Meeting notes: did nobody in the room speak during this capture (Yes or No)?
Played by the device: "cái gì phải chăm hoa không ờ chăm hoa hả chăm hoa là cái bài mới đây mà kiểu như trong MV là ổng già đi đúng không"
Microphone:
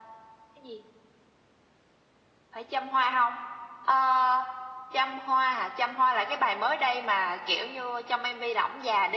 Yes